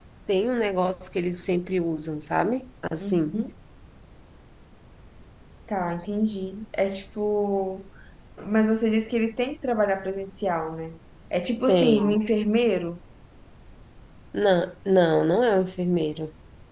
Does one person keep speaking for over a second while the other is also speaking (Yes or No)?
No